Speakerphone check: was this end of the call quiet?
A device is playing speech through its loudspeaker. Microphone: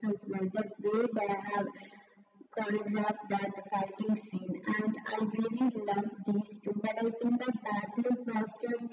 Yes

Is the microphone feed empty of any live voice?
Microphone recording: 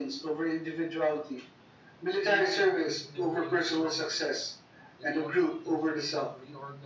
No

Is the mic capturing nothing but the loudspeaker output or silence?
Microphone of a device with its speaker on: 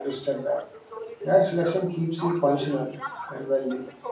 No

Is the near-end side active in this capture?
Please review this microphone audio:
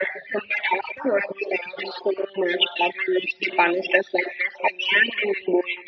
No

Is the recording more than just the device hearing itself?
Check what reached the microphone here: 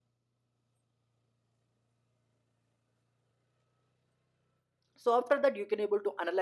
Yes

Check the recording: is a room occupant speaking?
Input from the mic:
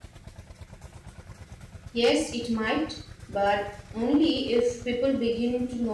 Yes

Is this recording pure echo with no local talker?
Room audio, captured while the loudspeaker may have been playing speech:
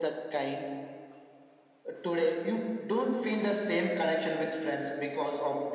Yes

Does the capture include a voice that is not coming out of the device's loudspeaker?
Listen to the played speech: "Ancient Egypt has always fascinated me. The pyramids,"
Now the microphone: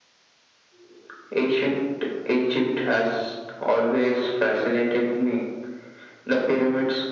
No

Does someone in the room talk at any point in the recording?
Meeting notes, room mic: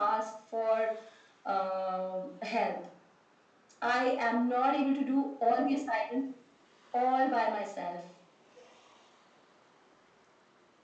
No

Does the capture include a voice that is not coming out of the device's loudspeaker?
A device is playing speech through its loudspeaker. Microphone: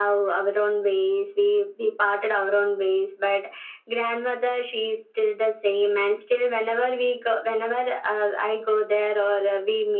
No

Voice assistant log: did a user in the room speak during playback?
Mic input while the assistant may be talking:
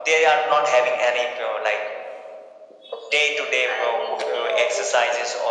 No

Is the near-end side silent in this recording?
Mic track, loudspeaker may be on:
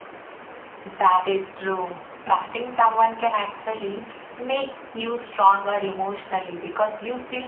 Yes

